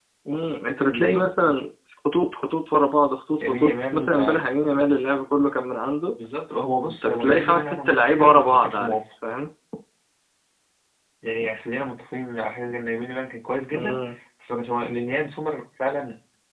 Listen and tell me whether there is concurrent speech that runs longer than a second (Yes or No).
Yes